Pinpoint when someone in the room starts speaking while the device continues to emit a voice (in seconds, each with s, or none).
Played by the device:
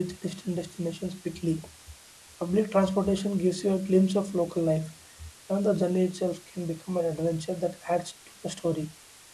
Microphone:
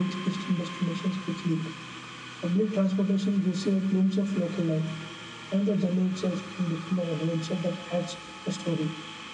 none